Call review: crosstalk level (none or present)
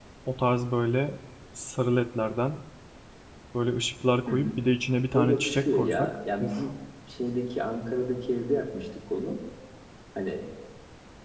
present